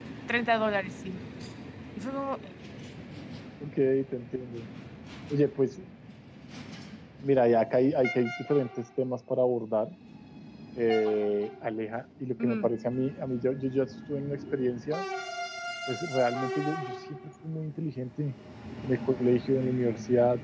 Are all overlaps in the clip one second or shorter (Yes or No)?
Yes